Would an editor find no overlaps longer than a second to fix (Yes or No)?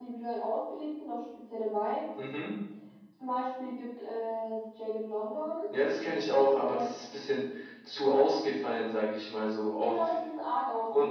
Yes